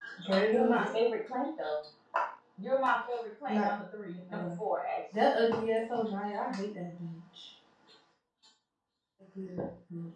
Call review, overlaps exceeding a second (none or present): none